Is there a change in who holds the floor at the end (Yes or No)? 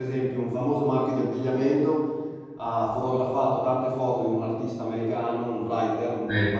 No